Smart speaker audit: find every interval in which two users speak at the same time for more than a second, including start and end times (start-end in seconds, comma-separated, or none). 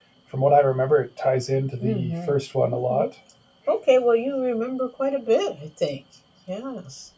1.8-3.1